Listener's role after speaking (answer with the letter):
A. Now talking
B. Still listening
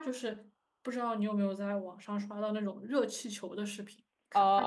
A